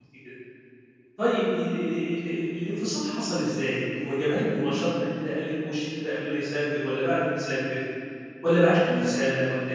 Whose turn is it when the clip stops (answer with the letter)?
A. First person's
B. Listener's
A